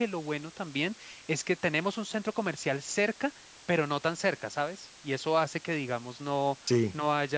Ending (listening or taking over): listening